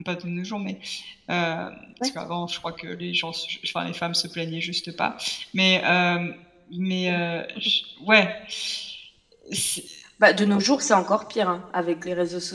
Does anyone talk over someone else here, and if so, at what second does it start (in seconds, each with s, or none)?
none